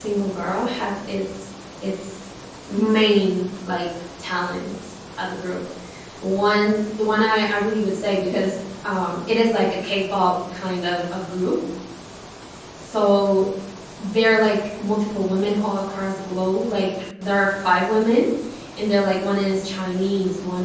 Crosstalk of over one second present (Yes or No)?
No